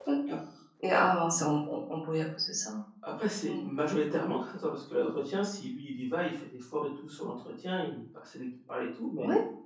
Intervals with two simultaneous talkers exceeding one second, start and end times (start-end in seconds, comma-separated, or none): none